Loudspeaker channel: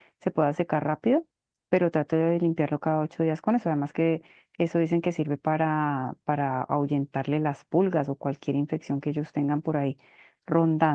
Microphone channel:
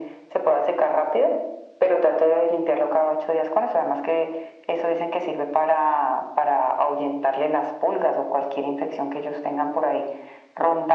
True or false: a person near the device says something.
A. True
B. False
B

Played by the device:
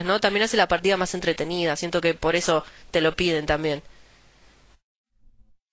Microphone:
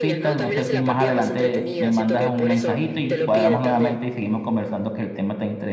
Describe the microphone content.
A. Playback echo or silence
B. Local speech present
B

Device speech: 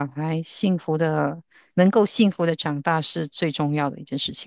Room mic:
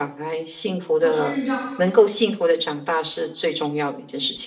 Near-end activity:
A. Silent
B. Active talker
B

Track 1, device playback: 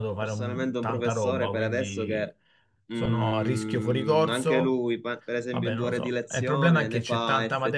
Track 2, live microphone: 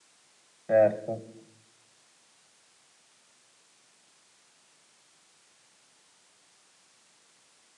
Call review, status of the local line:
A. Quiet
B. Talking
B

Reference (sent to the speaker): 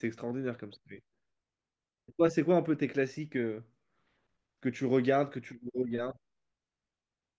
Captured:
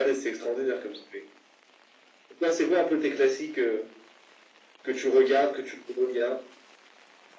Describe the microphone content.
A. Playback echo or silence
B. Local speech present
A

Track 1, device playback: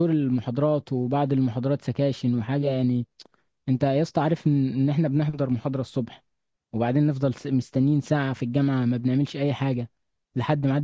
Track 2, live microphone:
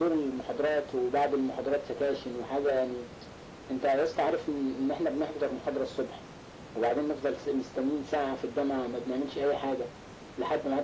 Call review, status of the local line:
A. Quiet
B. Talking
A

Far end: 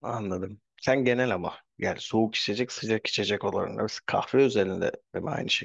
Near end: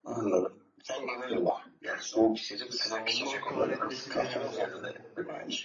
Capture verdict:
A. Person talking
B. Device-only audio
A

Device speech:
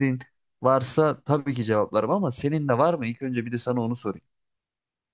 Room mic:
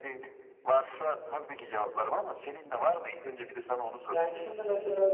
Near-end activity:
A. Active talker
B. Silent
A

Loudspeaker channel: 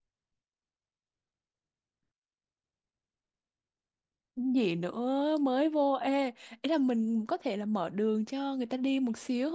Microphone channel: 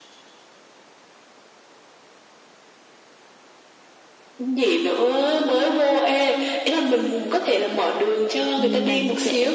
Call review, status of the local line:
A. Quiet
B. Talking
B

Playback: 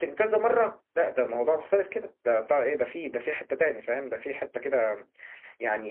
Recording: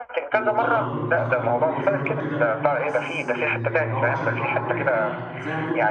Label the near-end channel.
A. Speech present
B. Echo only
A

